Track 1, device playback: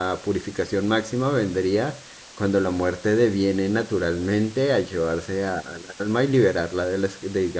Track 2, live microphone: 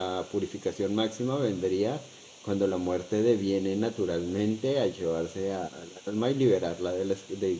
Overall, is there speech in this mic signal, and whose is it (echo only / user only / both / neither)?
echo only